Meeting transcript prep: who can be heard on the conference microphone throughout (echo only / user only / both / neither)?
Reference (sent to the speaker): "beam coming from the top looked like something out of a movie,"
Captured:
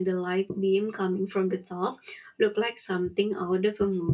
echo only